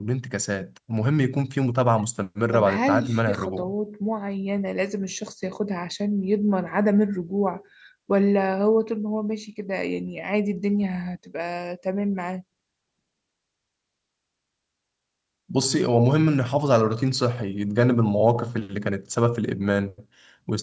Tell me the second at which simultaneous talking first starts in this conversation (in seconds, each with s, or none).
2.5 s